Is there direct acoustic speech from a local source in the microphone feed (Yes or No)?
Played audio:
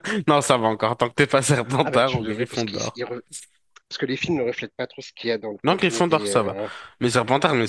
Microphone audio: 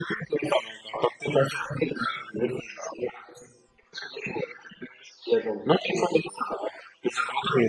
No